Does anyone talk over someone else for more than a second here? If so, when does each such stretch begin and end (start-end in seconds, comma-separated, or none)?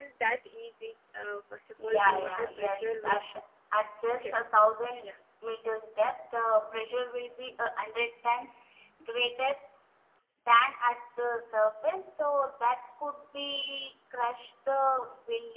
1.8-3.4